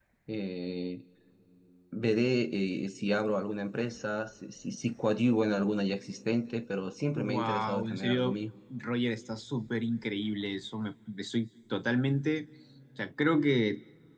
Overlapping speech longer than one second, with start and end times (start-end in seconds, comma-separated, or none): 7.2-8.4